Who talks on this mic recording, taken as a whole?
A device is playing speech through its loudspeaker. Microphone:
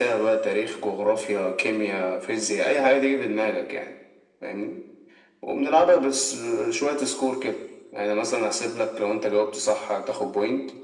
echo only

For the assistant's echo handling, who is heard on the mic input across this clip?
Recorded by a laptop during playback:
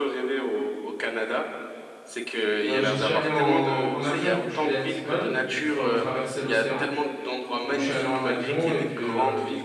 both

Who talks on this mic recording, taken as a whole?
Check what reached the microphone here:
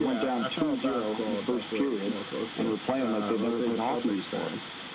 echo only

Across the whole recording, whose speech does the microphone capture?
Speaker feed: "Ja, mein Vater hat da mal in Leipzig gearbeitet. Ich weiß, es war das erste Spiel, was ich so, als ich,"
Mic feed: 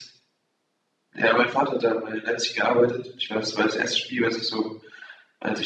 echo only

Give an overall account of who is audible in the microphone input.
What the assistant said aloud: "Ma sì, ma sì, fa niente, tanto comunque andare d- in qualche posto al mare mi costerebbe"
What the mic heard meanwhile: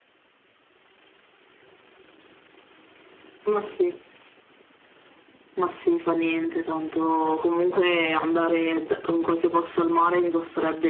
both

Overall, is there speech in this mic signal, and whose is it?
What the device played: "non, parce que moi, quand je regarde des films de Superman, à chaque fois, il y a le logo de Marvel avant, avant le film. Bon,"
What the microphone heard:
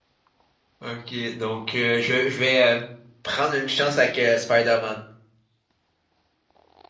user only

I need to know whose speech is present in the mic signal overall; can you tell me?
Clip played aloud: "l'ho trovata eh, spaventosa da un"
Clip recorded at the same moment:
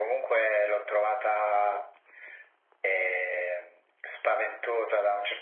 echo only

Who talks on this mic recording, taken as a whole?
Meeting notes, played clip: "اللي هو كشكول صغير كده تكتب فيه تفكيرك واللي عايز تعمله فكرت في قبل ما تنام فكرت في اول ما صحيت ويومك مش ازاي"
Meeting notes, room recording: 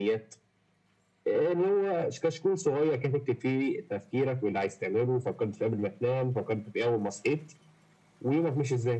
echo only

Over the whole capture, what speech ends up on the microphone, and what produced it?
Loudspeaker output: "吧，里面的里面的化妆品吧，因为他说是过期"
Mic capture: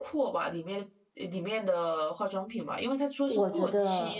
both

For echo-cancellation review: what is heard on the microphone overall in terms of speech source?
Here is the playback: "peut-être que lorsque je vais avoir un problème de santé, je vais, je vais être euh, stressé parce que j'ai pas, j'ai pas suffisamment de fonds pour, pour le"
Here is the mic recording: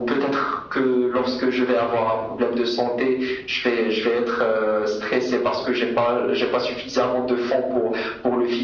echo only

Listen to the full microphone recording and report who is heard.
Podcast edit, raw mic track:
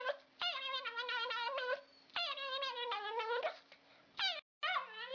neither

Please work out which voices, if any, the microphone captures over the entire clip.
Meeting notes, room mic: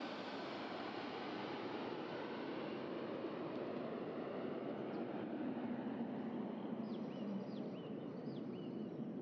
neither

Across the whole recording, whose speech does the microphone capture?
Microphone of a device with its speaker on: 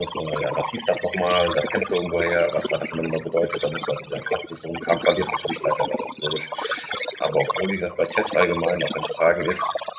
both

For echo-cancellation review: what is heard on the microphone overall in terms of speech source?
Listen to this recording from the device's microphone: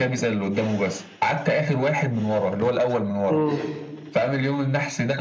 both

